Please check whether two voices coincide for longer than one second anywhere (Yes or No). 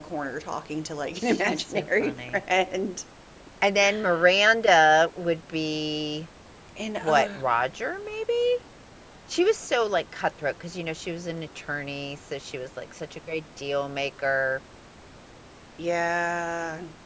Yes